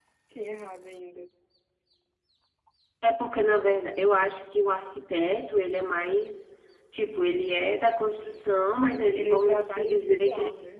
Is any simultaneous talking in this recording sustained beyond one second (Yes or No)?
Yes